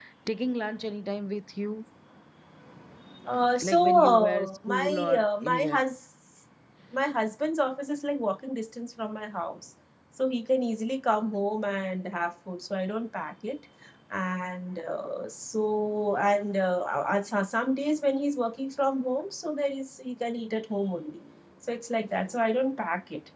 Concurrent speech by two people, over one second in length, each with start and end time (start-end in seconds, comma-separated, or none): 3.6-5.8